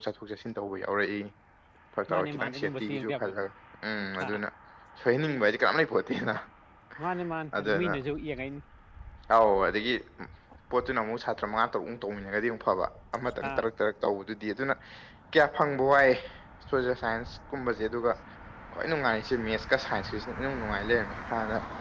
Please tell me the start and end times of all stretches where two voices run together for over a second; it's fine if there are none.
2.1-3.3

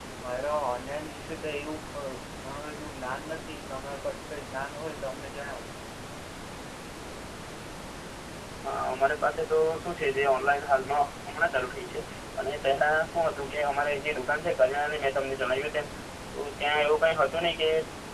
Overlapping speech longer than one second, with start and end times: none

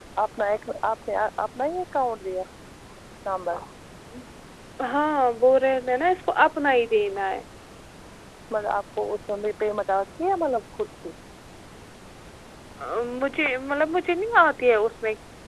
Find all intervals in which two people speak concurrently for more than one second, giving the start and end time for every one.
none

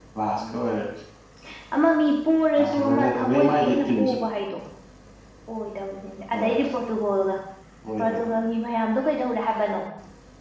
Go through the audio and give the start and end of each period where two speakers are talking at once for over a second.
2.6-4.2

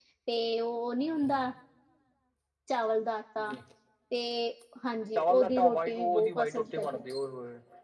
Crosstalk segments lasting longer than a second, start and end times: 5.2-7.0

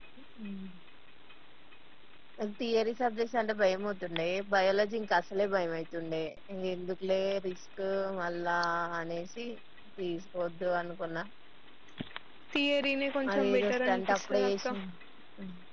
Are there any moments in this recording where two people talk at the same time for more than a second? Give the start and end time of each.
13.3-14.7

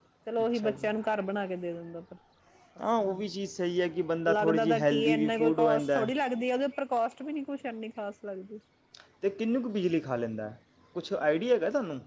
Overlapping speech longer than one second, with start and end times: 4.3-6.0

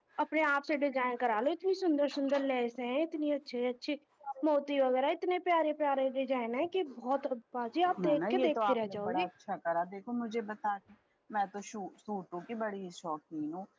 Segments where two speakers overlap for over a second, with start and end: 8.0-9.2

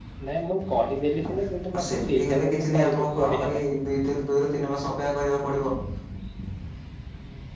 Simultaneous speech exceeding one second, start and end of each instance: 1.8-3.6

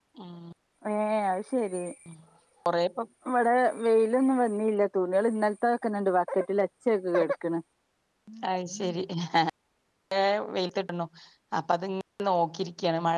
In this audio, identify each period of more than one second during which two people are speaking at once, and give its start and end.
none

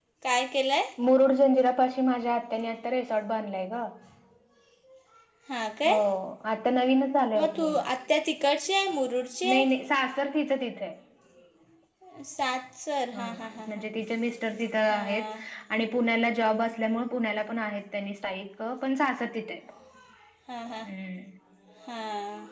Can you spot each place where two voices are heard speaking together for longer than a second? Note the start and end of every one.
none

